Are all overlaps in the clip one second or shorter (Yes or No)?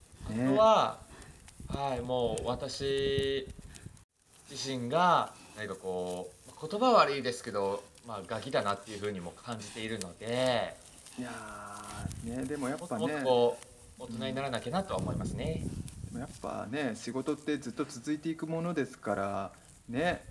Yes